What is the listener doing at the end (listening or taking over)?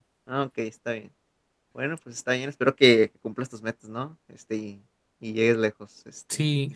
taking over